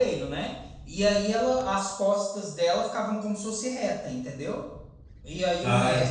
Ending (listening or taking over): listening